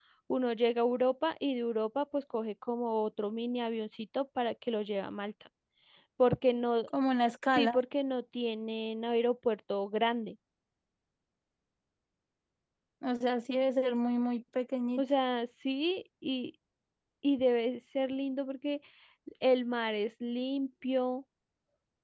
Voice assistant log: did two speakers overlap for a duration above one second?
No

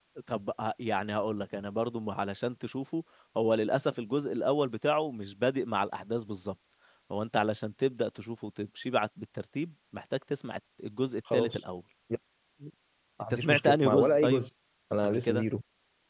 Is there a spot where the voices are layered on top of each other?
Yes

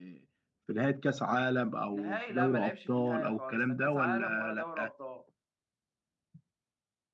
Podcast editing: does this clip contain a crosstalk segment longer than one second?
Yes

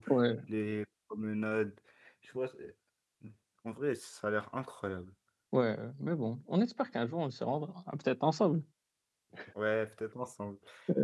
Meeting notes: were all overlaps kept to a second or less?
Yes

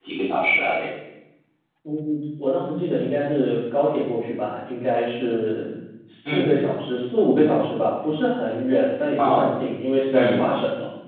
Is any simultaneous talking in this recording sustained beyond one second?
No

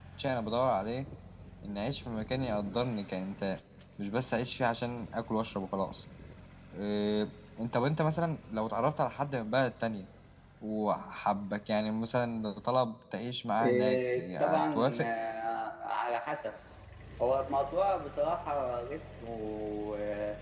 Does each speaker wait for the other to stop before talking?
No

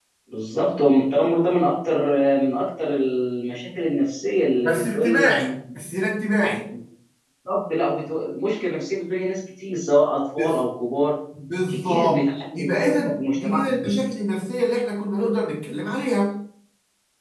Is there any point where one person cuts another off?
Yes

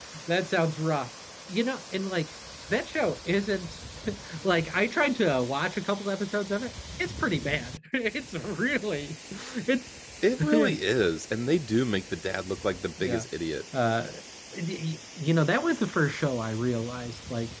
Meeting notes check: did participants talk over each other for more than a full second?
No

